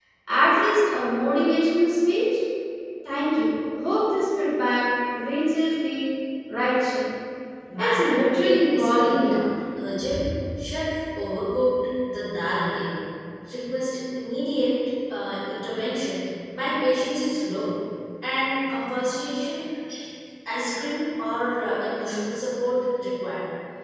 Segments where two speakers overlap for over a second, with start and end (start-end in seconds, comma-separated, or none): 7.8-9.2